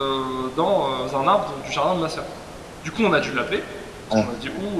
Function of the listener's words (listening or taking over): listening